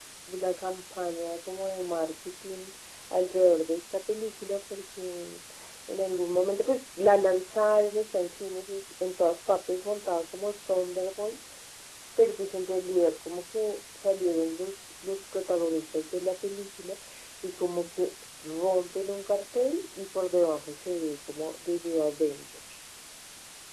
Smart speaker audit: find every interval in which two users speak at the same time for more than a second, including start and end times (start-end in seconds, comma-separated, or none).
none